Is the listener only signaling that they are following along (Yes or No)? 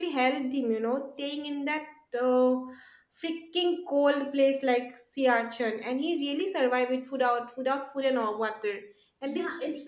No